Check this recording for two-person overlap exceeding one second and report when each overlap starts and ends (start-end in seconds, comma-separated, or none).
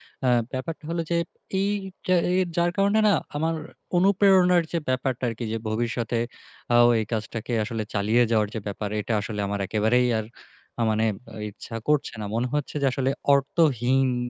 none